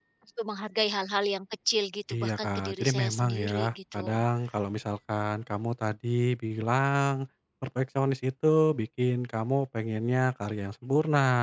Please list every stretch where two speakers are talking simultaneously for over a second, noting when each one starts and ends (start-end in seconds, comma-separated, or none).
2.1-3.5